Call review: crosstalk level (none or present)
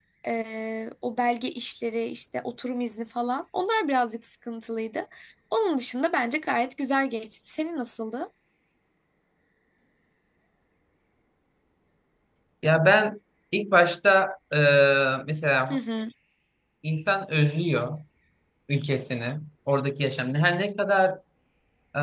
none